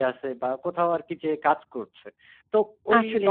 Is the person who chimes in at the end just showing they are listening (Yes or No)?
Yes